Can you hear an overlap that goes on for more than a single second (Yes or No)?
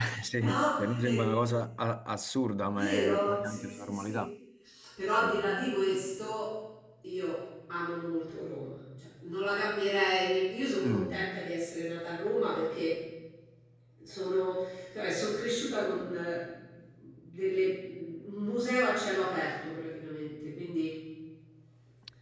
Yes